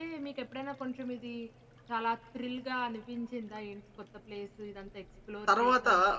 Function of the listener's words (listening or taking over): taking over